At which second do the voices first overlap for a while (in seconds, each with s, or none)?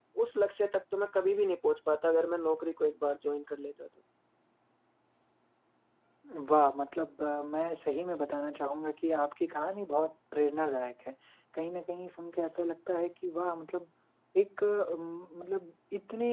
none